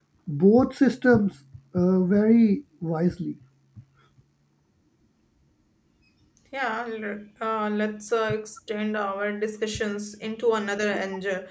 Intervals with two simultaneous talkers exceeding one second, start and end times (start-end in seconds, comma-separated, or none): none